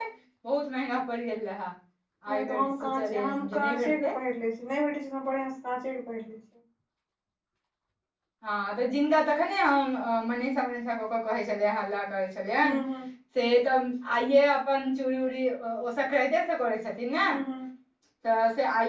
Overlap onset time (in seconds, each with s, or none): 2.3 s